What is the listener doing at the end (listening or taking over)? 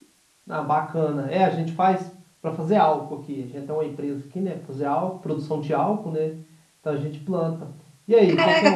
taking over